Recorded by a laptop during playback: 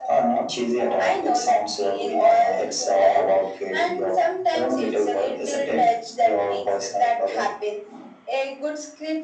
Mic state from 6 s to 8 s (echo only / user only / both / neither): echo only